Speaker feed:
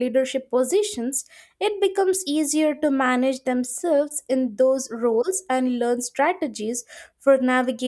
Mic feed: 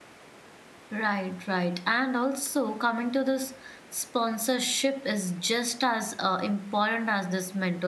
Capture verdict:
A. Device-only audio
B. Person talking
B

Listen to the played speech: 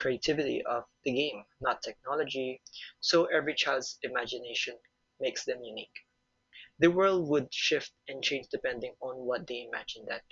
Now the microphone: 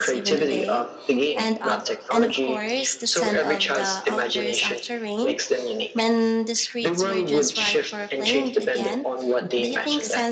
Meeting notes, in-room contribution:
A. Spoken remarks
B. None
A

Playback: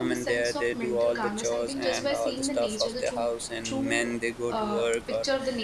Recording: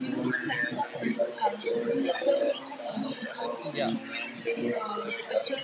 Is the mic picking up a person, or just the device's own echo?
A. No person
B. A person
B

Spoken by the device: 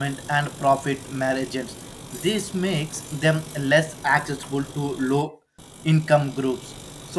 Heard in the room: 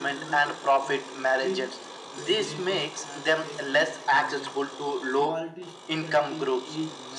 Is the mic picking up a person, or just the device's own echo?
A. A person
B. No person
A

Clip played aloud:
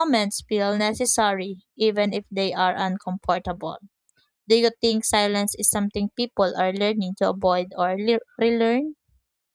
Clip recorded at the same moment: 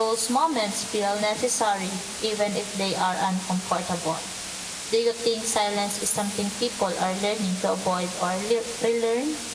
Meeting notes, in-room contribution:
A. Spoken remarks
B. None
B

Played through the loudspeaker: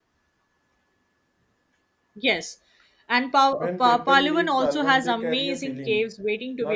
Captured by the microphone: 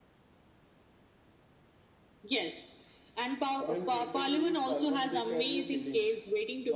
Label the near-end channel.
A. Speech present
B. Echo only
B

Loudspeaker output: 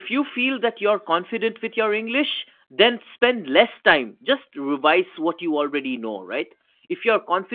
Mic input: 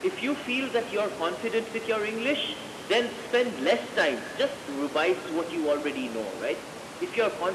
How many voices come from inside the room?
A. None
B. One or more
A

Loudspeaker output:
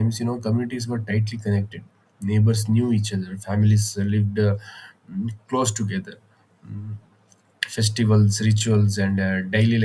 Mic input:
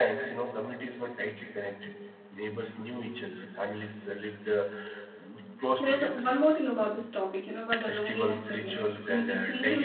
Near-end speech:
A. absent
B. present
B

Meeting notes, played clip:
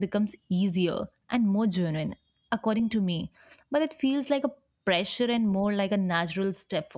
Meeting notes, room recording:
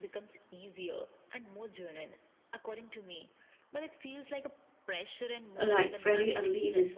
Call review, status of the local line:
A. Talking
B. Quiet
A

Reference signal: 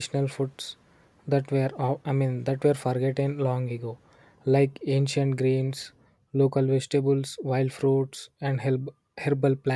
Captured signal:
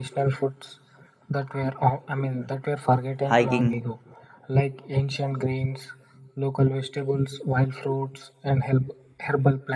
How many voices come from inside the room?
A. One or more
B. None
A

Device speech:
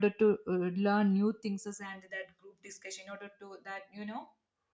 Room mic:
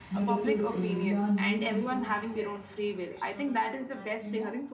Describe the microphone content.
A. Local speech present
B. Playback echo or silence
A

